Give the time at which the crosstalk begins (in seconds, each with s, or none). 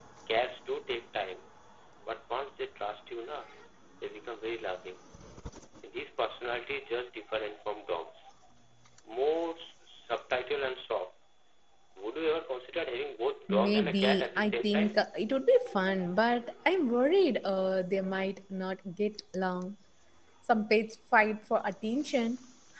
13.5 s